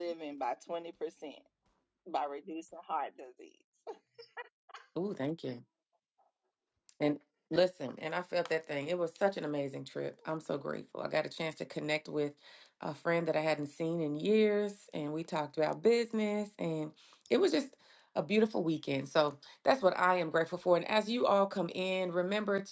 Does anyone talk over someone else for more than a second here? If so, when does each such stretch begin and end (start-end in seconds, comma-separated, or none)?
none